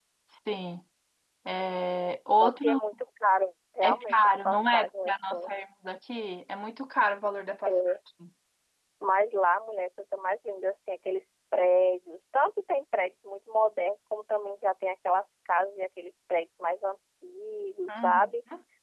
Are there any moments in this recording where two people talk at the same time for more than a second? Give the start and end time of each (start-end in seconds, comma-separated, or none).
3.8-5.5